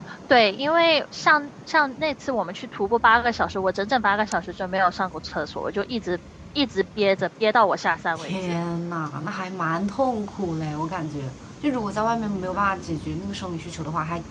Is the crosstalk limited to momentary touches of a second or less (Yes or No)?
Yes